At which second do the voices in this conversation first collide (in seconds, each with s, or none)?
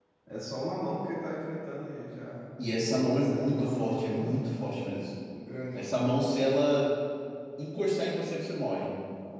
3.0 s